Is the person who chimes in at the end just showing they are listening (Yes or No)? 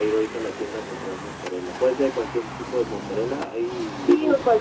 No